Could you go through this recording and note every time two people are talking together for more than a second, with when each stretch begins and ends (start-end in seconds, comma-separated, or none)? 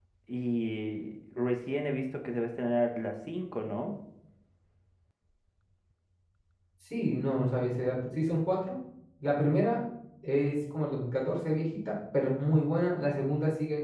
none